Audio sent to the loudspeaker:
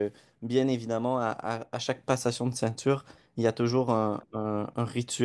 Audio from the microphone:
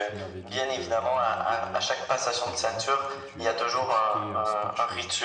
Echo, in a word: present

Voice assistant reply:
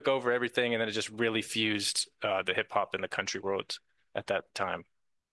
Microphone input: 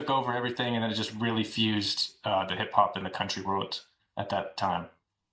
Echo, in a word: present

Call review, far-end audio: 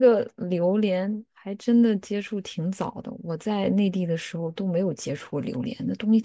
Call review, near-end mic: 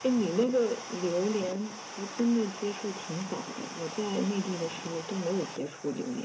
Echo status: present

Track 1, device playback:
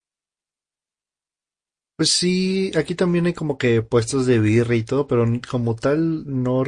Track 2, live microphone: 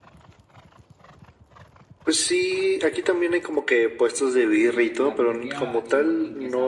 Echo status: present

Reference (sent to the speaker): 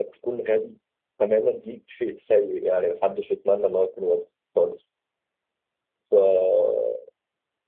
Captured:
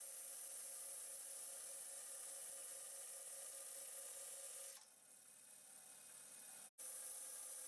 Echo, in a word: none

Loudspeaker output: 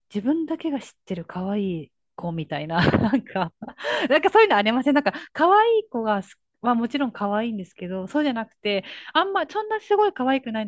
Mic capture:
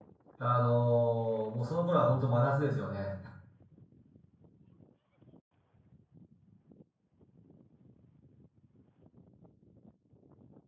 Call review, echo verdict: none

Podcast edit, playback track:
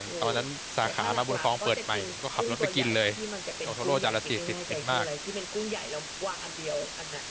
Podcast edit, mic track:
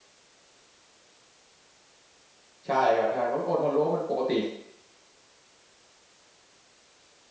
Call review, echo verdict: none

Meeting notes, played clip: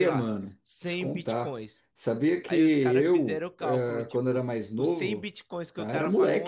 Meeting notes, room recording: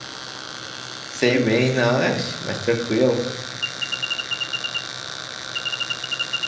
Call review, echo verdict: none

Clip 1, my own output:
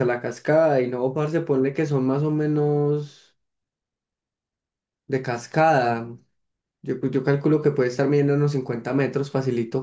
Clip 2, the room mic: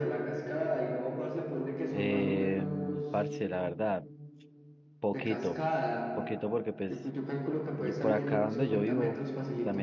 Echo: present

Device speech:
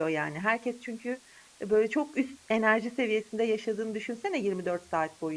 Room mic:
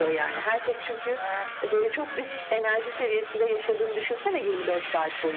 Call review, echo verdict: present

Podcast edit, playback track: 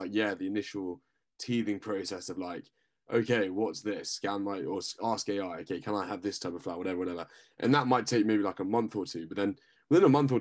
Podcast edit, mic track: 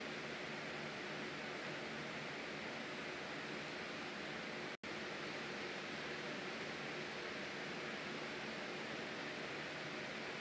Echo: none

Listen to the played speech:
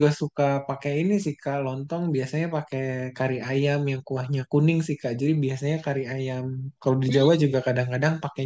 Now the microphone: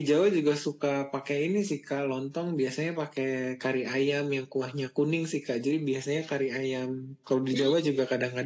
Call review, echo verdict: present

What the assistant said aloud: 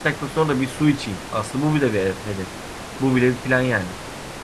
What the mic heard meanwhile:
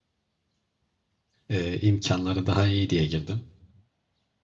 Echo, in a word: none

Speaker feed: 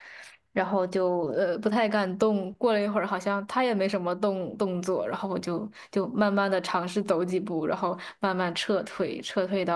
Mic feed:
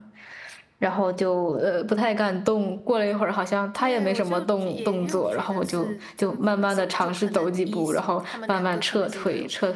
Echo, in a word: present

